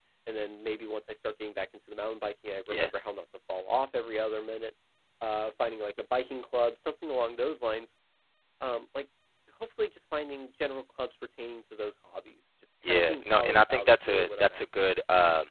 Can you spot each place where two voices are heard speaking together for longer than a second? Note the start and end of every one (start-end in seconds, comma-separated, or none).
12.9-14.6